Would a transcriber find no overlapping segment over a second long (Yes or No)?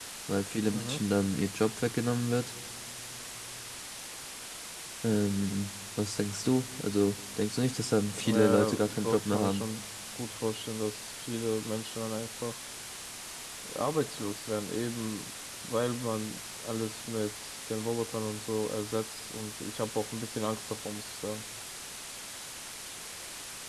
No